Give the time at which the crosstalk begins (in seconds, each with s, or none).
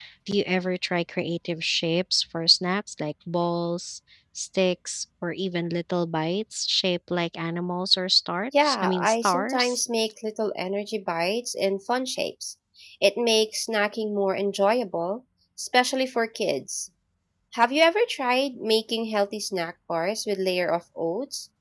8.5 s